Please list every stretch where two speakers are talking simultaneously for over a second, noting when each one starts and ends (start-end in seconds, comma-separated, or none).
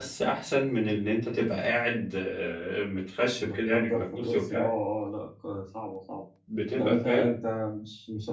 3.4-4.6